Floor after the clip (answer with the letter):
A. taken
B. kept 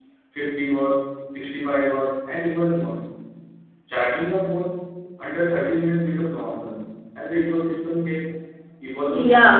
A